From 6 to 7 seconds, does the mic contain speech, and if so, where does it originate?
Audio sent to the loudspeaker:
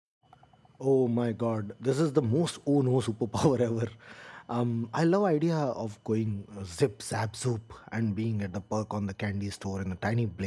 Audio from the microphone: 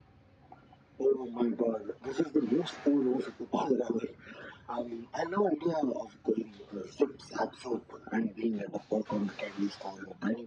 echo only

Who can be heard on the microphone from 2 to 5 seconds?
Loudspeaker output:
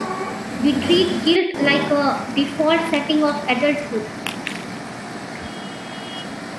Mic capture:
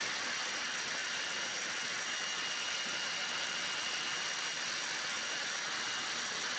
neither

